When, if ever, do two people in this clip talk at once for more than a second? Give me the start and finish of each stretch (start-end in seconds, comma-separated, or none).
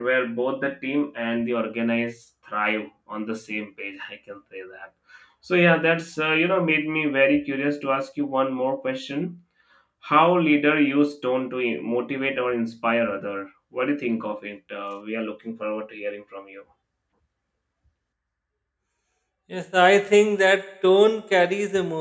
none